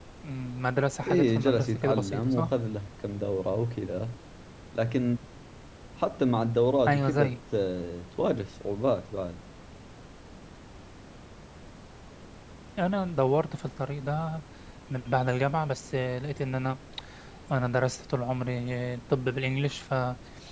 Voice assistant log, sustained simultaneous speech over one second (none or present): present